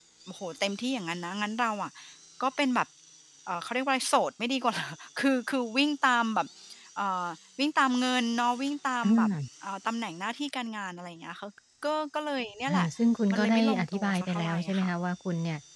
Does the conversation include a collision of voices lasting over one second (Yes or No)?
Yes